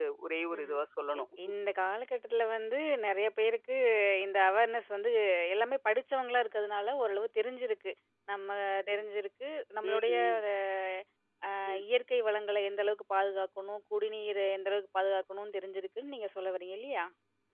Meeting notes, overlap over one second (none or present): none